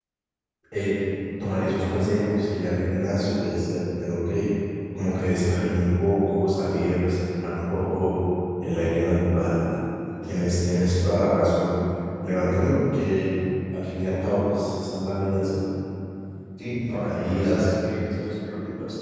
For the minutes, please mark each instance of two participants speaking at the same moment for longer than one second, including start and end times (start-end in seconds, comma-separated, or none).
16.7-18.0